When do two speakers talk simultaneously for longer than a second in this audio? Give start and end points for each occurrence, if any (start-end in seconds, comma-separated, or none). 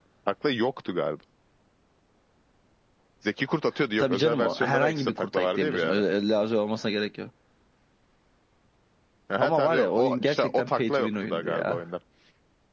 4.0-6.0, 9.4-11.8